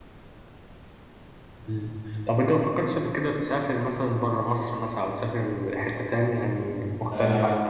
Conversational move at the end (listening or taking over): taking over